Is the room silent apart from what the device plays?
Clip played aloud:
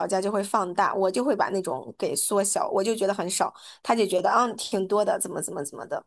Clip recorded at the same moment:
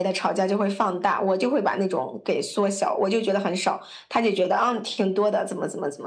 Yes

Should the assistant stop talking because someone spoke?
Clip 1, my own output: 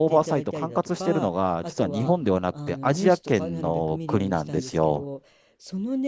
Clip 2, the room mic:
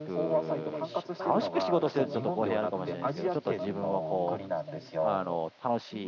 Yes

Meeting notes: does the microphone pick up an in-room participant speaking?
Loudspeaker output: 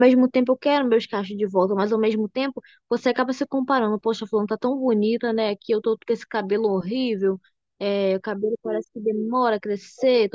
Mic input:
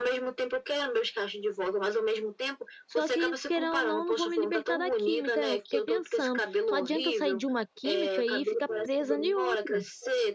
Yes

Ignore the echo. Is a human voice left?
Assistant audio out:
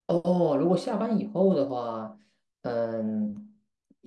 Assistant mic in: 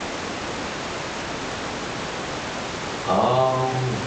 Yes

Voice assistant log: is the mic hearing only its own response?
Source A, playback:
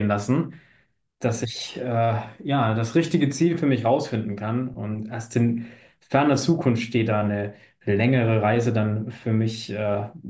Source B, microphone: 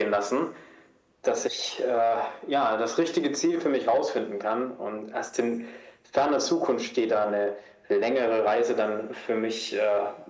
Yes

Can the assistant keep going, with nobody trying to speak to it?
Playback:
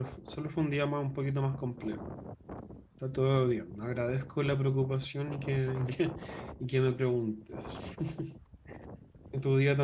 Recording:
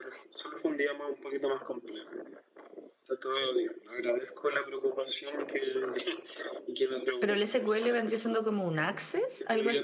No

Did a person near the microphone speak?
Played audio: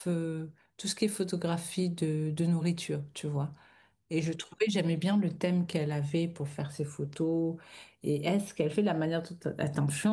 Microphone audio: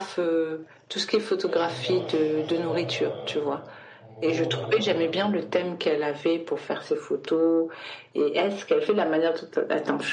Yes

